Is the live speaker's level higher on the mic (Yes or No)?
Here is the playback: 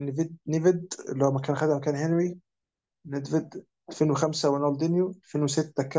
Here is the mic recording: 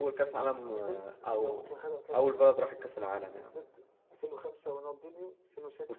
Yes